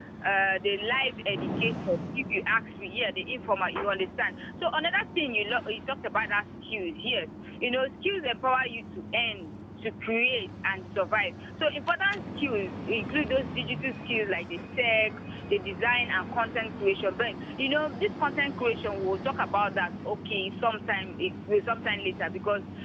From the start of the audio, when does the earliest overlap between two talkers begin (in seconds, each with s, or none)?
none